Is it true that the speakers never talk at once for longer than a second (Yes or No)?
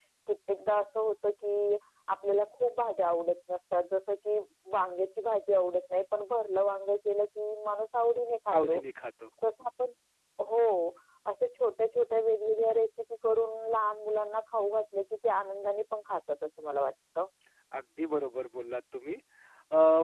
Yes